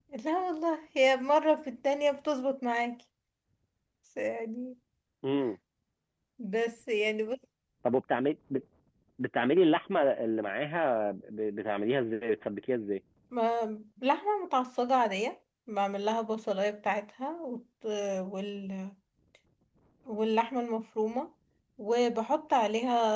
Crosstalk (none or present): none